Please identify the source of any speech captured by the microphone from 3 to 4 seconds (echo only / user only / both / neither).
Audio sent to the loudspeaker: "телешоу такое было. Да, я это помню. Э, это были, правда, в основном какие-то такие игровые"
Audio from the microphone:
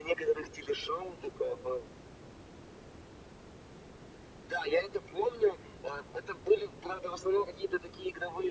neither